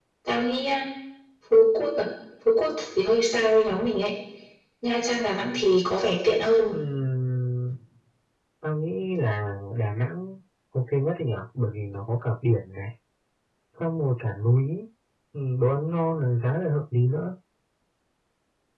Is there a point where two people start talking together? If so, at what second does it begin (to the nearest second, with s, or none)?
none